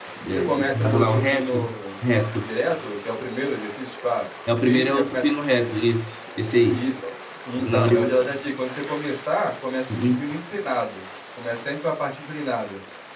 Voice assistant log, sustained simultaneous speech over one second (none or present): present